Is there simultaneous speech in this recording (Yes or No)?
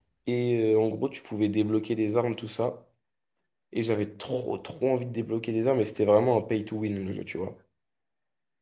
No